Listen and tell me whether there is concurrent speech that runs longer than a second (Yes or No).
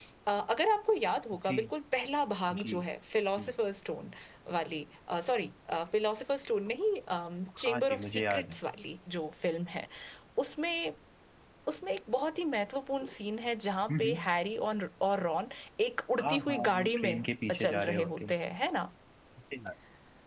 Yes